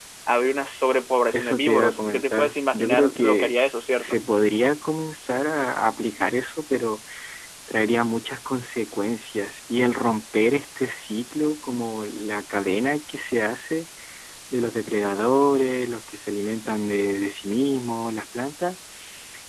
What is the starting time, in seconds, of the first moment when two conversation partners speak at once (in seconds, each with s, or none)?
1.3 s